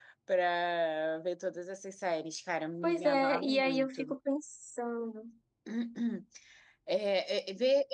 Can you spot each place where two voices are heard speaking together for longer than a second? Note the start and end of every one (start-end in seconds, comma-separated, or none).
2.8-4.2